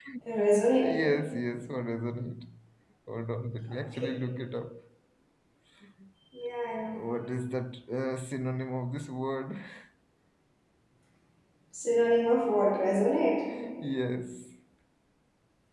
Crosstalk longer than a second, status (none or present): none